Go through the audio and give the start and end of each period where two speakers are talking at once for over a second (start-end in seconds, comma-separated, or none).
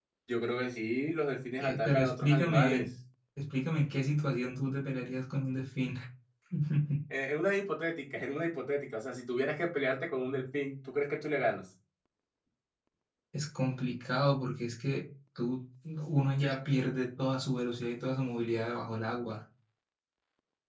1.6-2.9